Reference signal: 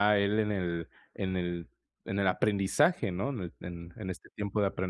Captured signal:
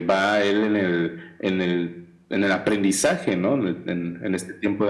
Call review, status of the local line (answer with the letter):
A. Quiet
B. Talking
A